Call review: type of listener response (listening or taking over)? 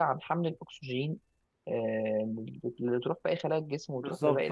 taking over